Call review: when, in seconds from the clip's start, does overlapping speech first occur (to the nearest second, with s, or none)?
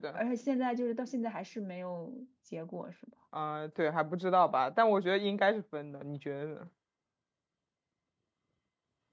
none